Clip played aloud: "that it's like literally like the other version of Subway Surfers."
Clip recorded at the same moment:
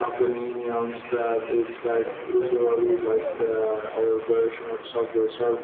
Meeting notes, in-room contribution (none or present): present